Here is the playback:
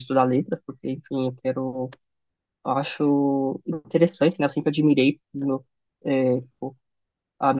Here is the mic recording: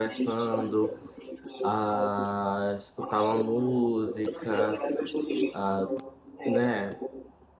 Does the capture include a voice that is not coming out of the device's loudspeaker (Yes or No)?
Yes